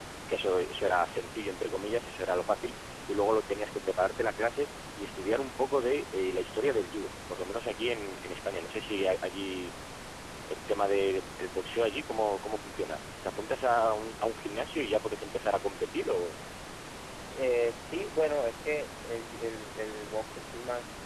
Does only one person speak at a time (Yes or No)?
Yes